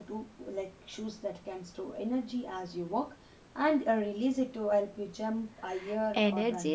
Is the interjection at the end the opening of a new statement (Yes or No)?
Yes